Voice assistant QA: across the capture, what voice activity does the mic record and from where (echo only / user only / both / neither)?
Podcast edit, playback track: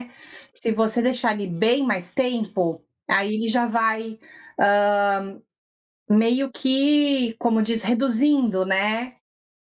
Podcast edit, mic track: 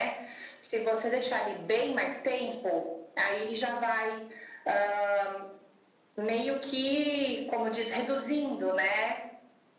echo only